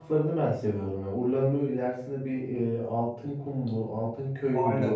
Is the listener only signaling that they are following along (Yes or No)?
No